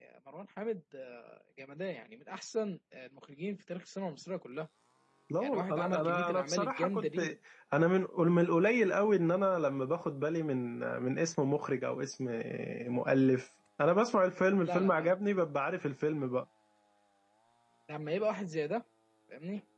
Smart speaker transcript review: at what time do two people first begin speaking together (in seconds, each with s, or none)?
5.4 s